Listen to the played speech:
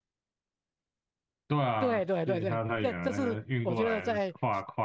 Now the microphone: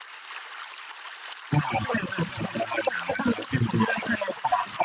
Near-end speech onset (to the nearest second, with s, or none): none